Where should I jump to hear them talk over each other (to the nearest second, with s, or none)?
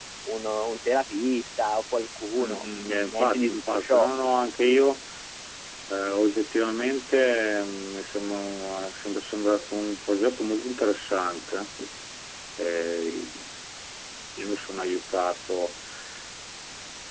2 s